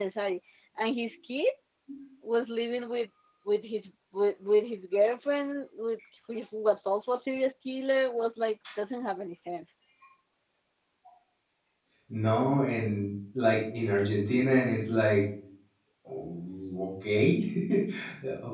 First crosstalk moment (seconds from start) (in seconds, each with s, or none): none